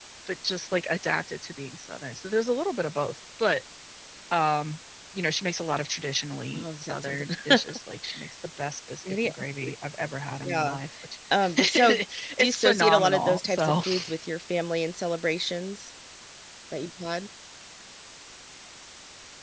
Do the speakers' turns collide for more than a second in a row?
Yes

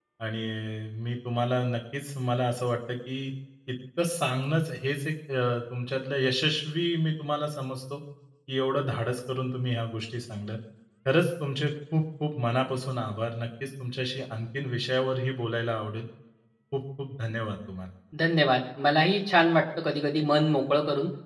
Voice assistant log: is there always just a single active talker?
Yes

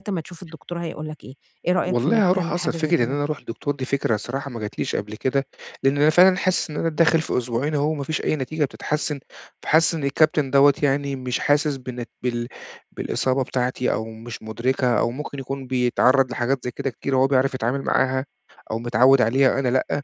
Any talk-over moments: Yes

